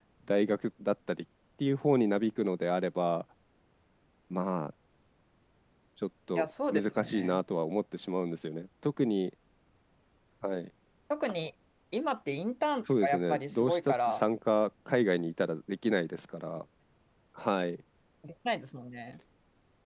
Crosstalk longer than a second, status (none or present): present